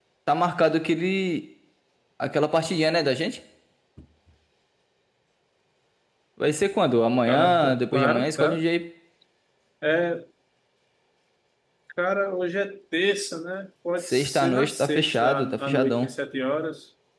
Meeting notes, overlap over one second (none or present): present